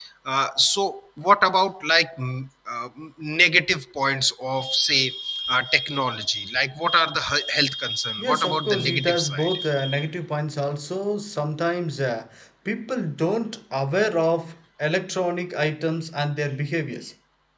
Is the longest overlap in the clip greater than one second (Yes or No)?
Yes